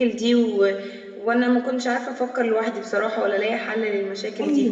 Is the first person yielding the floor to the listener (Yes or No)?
Yes